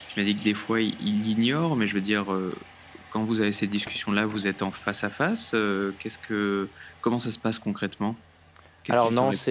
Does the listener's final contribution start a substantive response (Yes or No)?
Yes